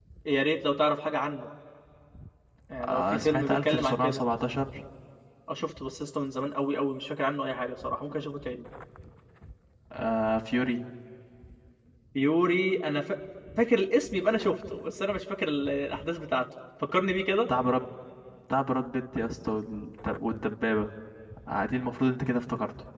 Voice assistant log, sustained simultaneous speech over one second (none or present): present